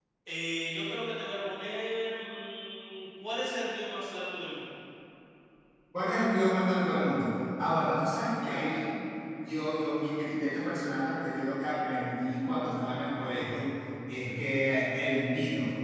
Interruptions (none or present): none